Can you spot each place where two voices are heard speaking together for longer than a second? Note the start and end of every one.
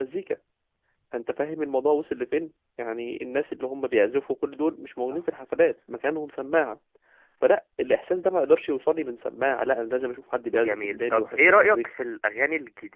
10.6-11.9

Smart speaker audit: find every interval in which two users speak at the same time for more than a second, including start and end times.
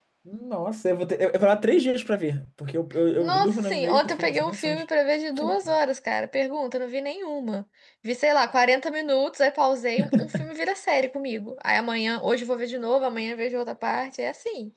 3.2-4.8

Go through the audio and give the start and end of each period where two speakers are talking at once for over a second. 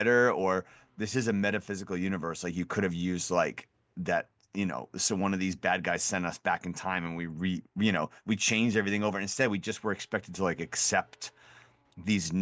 none

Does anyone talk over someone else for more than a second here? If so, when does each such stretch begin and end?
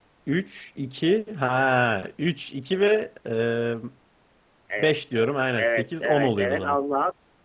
5.6-6.8

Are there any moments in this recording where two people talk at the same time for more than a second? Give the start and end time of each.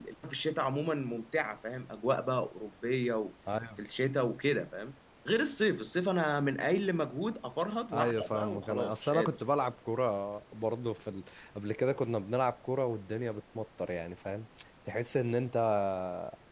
7.9-9.4

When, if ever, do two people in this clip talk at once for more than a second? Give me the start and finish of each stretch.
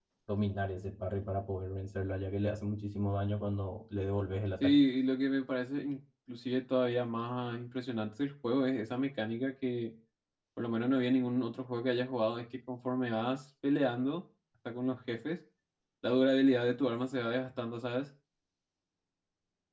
none

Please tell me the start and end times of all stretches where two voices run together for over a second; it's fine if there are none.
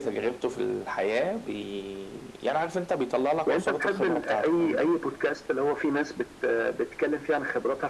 3.5-4.9

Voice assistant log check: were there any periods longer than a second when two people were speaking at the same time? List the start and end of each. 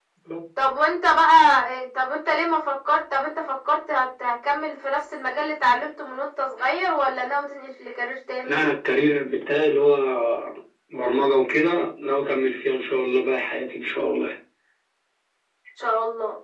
none

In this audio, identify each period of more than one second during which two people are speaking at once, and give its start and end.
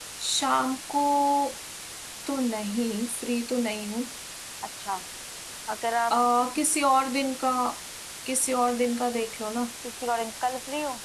none

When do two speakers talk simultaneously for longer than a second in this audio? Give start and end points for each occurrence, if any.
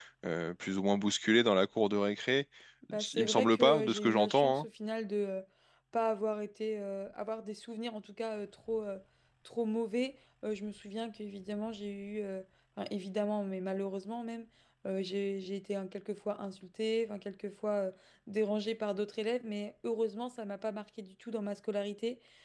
3.1-4.7

